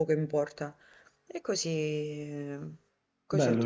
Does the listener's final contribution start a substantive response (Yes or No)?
Yes